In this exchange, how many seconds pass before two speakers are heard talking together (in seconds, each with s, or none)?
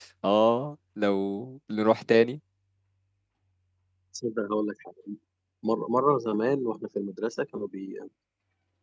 none